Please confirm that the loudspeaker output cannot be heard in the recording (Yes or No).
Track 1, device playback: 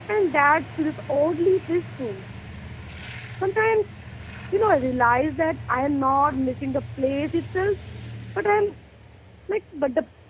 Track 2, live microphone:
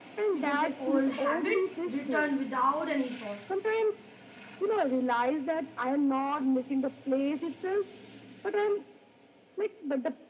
No